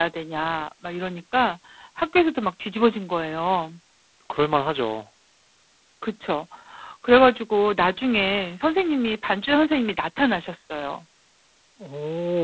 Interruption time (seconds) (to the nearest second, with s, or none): none